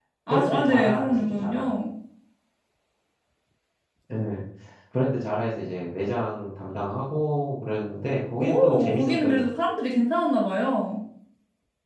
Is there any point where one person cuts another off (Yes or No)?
Yes